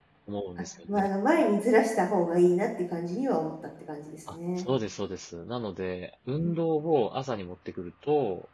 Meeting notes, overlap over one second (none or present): none